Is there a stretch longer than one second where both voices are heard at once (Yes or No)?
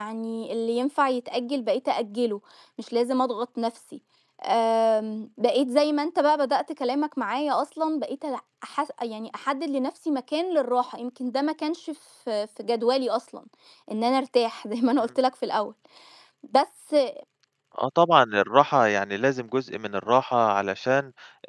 No